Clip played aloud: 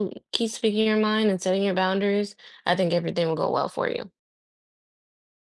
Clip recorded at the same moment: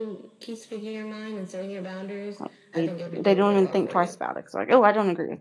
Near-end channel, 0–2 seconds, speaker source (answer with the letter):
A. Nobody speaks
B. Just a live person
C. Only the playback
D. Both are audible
C